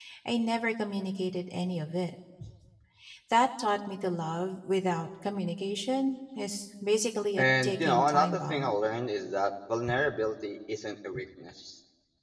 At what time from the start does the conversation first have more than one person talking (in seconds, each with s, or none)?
7.4 s